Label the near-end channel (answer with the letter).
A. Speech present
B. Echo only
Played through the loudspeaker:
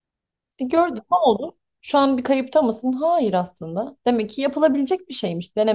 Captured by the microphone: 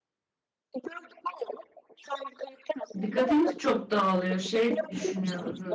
A